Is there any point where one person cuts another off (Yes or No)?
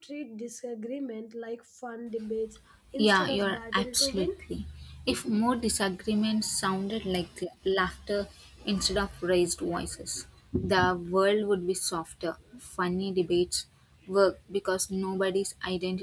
Yes